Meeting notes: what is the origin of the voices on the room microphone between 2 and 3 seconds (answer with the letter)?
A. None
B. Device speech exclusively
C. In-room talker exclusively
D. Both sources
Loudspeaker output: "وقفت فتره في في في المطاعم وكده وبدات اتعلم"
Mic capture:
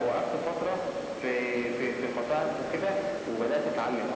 B